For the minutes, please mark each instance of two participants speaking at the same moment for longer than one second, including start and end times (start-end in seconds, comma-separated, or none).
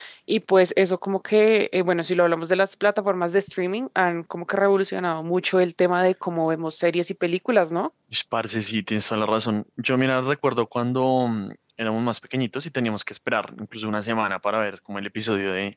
none